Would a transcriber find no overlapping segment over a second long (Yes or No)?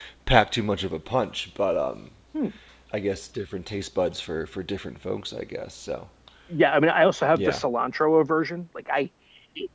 Yes